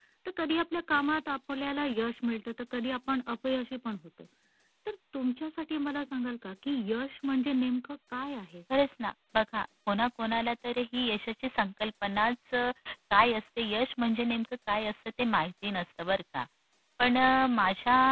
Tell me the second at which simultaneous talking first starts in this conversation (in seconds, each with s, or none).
none